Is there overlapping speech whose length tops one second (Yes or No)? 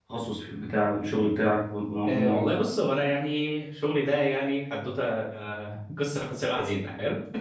No